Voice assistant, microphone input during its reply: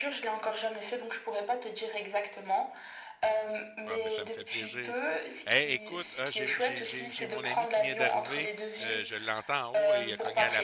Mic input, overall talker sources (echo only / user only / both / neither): both